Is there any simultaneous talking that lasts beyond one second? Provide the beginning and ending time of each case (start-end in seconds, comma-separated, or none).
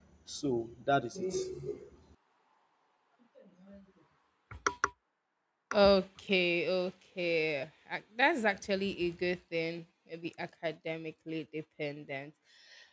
none